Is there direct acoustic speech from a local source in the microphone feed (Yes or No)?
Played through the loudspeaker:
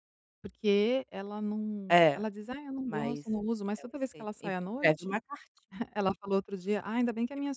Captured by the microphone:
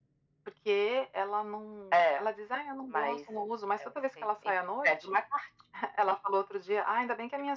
No